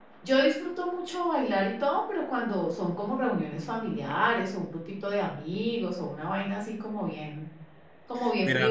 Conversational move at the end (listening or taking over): taking over